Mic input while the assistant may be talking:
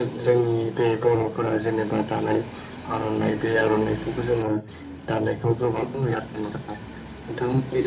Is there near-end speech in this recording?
No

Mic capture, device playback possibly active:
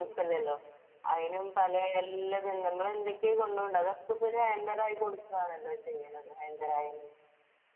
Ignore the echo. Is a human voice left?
No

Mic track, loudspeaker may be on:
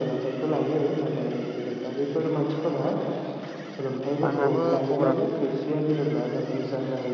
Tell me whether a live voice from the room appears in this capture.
Yes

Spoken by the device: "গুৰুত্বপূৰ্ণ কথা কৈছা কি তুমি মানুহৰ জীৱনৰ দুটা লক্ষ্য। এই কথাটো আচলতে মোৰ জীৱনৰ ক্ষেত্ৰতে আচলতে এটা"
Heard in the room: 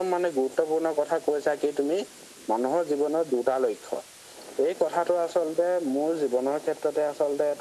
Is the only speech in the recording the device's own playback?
Yes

